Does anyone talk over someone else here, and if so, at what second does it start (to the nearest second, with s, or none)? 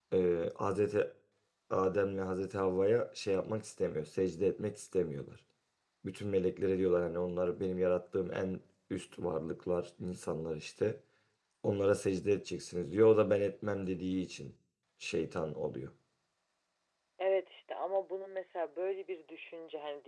none